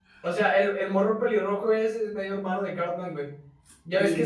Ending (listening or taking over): listening